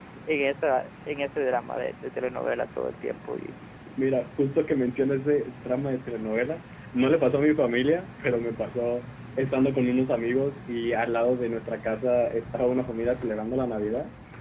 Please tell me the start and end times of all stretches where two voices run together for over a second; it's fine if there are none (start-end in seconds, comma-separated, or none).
none